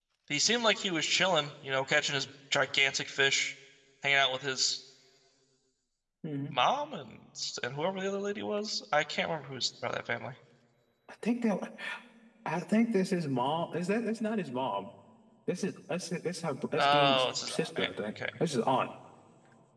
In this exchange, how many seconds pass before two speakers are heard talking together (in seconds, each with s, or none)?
16.8 s